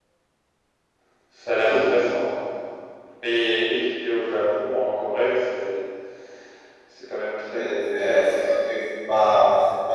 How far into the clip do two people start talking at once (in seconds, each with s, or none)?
7.5 s